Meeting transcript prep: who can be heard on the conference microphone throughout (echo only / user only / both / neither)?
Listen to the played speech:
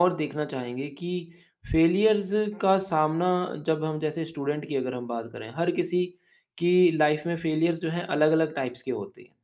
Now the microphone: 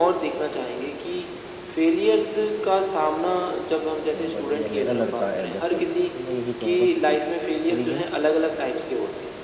both